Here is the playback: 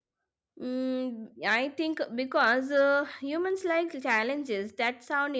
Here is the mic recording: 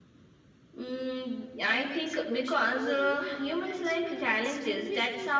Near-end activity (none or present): present